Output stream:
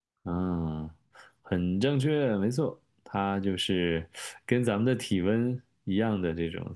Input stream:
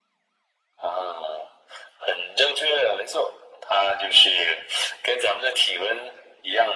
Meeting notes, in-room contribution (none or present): none